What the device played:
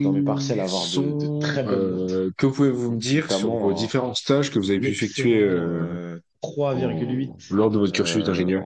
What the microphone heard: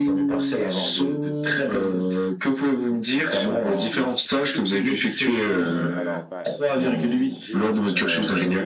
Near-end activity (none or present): present